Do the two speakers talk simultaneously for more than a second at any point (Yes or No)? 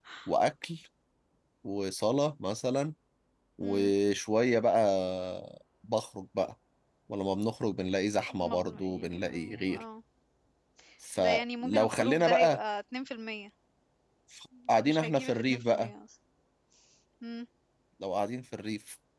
Yes